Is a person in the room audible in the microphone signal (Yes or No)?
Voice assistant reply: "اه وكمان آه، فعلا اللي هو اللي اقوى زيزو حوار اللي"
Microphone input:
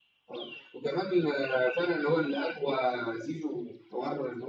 No